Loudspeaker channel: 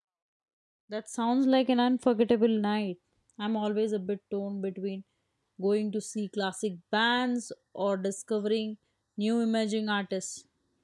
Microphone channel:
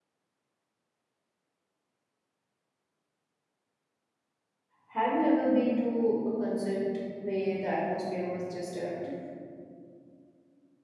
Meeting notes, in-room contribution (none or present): present